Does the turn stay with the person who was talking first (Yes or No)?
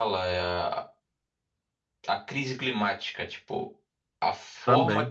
Yes